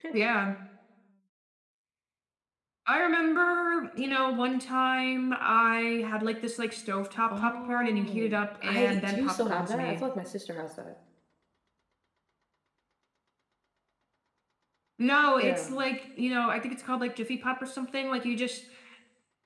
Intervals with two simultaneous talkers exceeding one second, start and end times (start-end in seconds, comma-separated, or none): 7.4-10.0